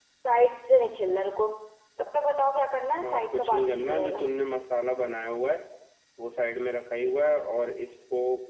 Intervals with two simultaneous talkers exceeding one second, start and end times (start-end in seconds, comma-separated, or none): 3.0-4.2